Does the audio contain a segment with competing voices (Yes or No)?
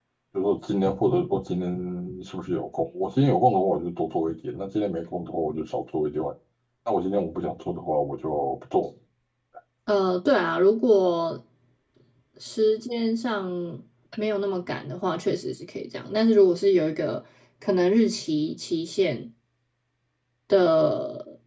No